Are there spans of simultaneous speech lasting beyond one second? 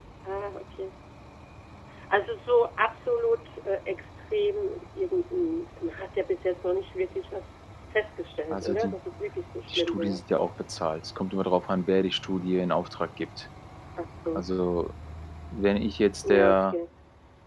No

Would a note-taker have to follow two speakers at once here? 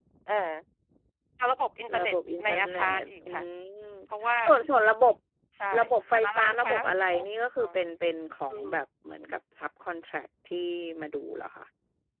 Yes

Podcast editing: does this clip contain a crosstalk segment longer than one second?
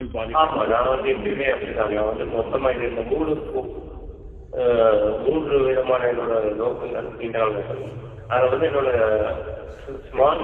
Yes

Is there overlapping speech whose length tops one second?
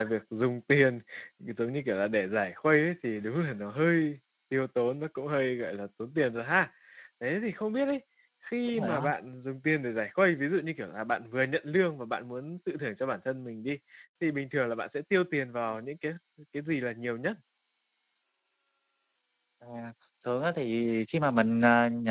No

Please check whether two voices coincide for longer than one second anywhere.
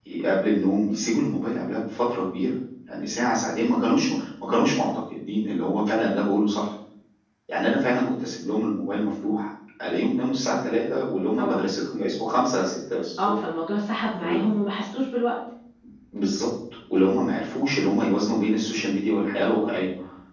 No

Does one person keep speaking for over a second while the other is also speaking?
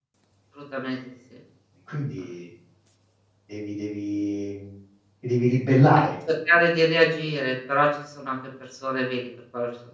No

